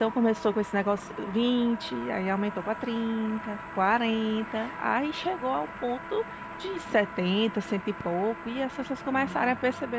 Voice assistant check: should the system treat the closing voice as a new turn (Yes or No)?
Yes